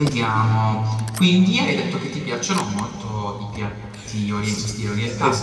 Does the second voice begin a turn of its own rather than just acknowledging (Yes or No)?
Yes